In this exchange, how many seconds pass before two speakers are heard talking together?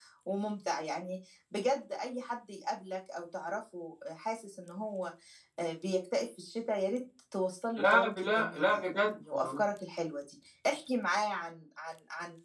7.8 s

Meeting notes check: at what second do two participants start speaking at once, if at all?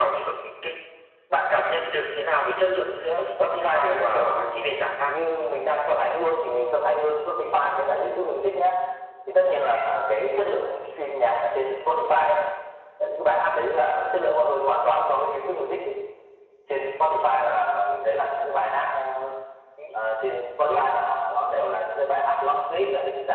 3.4 s

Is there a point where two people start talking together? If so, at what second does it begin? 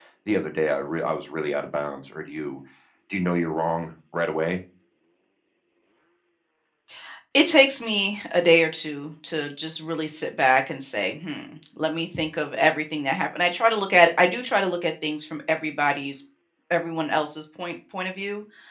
none

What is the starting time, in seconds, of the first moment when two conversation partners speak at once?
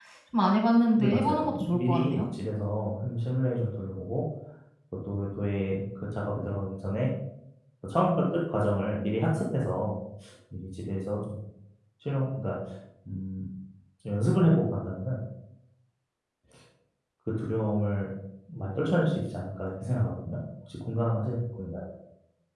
1.0 s

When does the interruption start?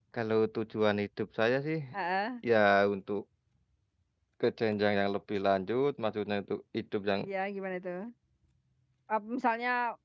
none

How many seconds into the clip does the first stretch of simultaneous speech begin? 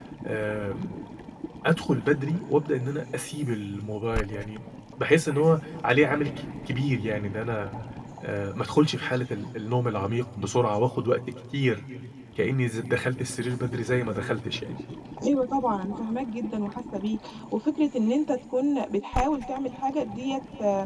none

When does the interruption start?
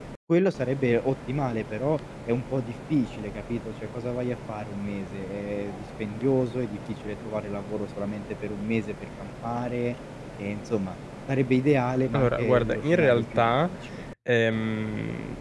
12.1 s

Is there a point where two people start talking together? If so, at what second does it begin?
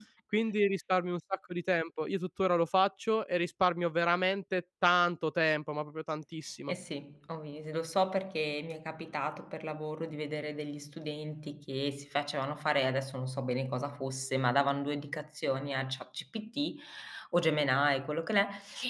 none

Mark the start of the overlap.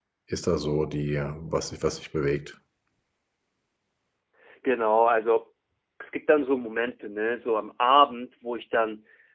none

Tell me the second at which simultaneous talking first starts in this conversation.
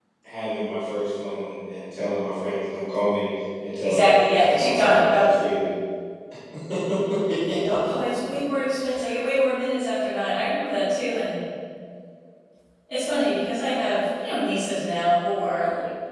3.8 s

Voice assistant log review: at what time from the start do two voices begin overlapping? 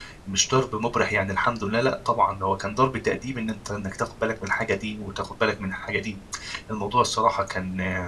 none

